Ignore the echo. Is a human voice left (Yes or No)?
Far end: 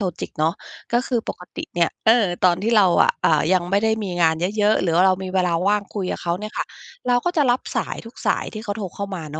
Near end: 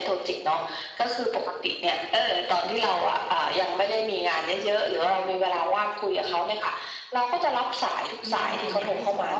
Yes